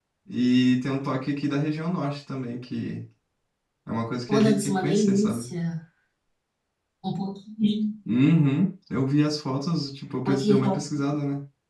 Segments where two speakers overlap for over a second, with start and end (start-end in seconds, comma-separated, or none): 4.3-5.5